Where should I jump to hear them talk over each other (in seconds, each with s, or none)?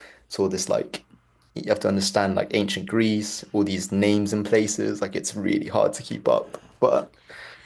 none